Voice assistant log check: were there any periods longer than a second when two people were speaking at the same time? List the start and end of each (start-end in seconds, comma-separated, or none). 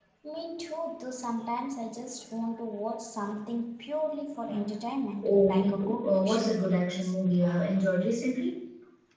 5.2-6.9